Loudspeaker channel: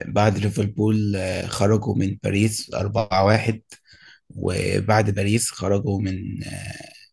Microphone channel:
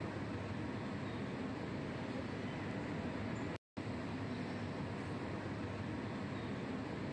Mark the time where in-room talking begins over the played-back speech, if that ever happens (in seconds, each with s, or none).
none